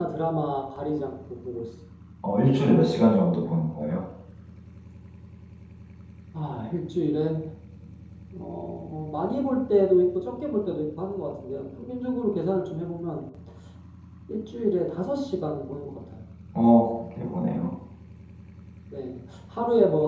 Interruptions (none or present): none